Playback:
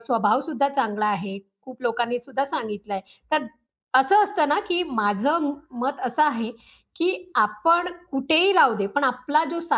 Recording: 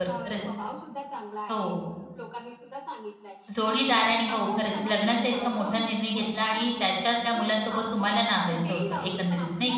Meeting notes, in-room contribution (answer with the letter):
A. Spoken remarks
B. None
A